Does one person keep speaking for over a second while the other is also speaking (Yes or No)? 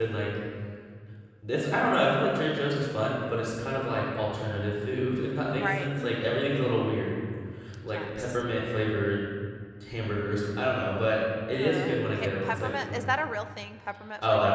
Yes